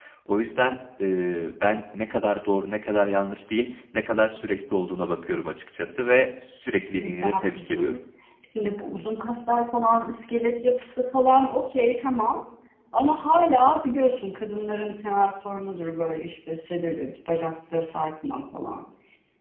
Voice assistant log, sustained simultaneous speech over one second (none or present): present